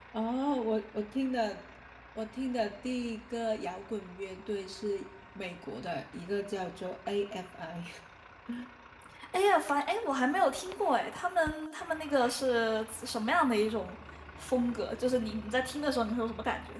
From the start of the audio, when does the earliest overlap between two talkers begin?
none

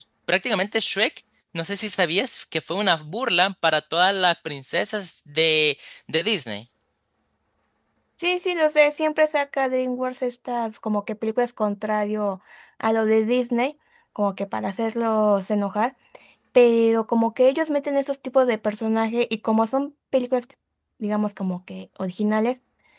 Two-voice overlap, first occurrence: none

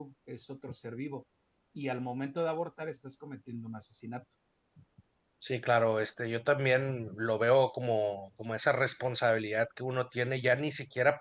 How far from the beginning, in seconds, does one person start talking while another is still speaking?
none

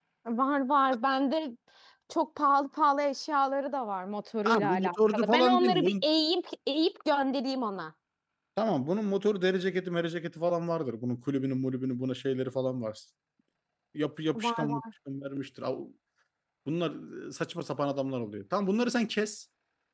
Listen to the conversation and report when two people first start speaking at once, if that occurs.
4.5 s

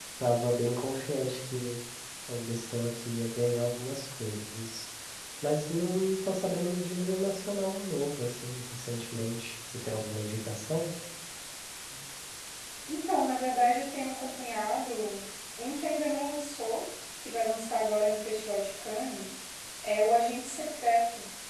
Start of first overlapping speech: none

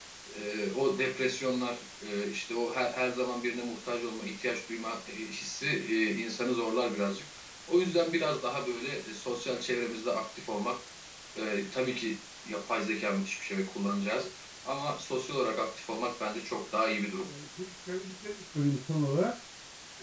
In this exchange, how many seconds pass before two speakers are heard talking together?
none

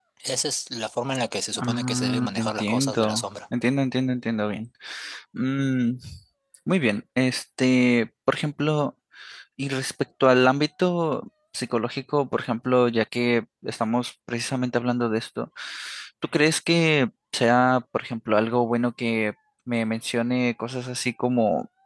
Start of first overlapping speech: 1.6 s

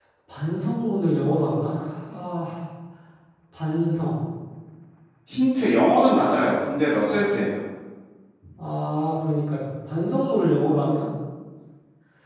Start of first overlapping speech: none

